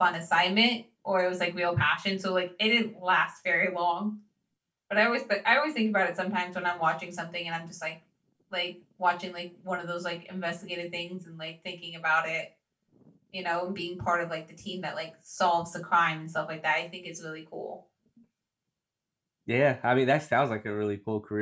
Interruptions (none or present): none